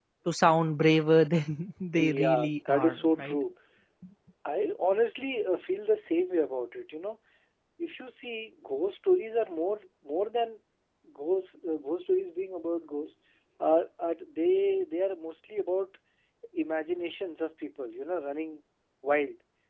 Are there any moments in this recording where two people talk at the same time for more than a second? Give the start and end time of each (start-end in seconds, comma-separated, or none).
2.0-3.4